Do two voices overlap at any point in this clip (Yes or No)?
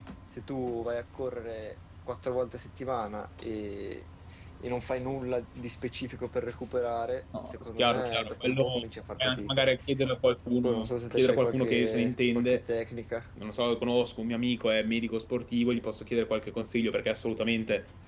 Yes